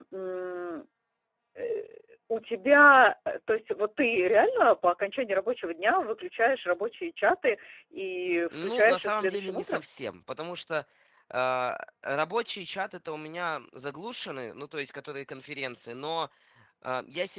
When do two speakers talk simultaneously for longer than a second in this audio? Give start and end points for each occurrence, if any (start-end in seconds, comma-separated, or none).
8.5-9.8